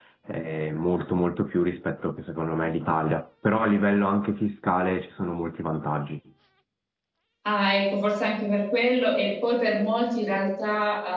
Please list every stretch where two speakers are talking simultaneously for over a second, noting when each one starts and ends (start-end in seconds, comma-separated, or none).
none